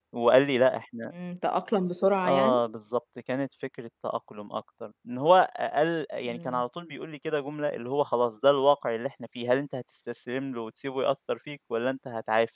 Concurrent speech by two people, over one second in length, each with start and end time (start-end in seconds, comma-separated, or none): none